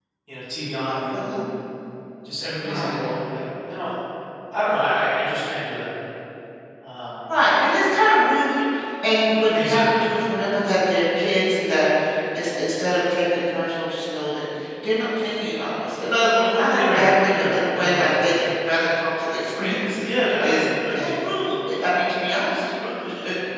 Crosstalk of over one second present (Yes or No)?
Yes